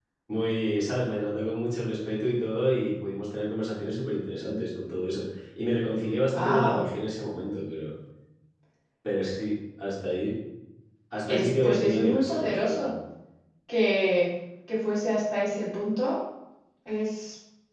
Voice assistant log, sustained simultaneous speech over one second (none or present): present